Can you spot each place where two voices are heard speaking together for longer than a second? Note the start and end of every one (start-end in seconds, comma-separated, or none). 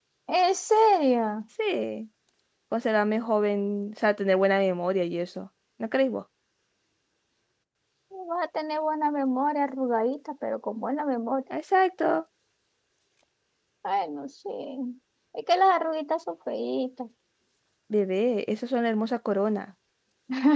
none